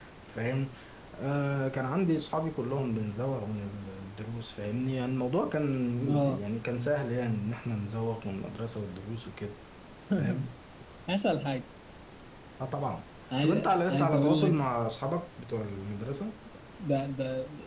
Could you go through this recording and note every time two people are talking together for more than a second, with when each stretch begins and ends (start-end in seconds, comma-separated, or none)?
13.4-14.7